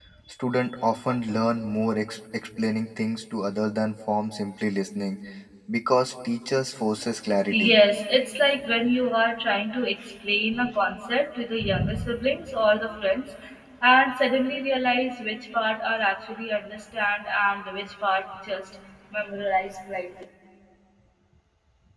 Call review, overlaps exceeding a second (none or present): none